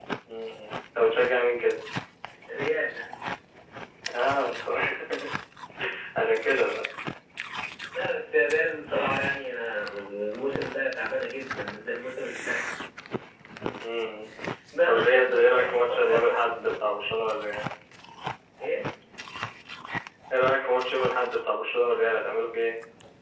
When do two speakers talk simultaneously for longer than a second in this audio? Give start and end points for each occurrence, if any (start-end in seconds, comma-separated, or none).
14.9-16.4